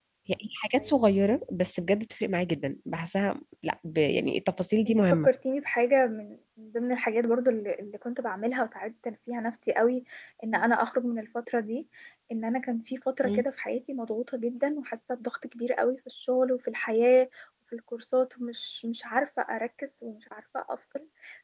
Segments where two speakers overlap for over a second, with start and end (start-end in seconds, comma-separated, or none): none